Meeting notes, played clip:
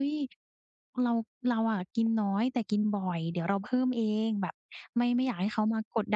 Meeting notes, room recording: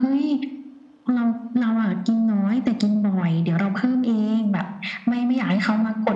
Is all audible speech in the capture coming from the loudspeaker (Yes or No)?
Yes